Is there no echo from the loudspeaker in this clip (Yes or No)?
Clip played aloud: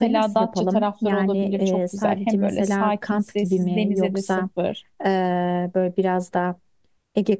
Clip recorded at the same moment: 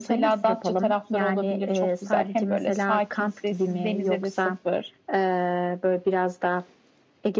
No